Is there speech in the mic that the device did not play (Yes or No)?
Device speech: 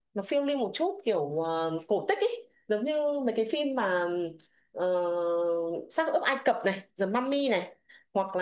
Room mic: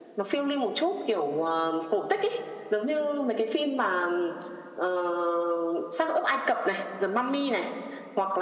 No